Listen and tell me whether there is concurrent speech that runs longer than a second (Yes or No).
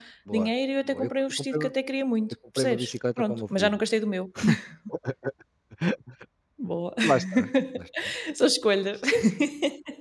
Yes